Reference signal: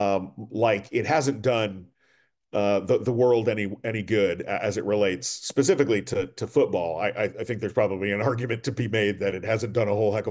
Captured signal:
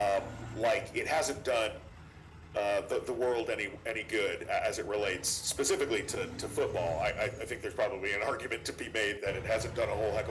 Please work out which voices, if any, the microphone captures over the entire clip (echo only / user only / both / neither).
echo only